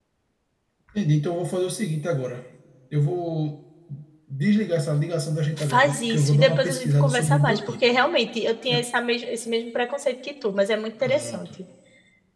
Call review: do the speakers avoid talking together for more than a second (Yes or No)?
No